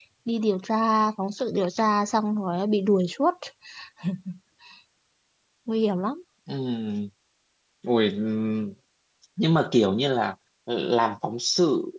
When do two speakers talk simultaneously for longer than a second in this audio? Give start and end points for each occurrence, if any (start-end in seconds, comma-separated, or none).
none